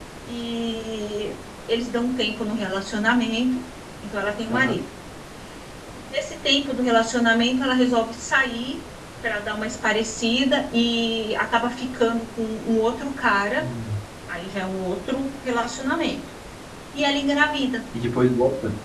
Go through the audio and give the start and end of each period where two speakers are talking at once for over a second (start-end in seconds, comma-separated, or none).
none